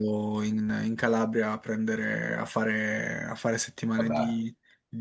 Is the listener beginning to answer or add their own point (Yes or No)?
No